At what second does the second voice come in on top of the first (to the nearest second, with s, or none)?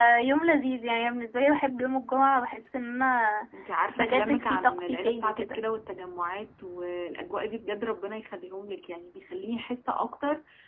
4 s